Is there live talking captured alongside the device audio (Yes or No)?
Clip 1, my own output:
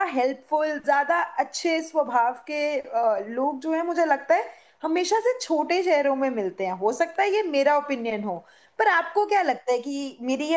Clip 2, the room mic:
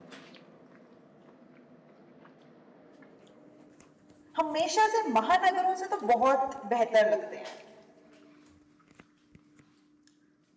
Yes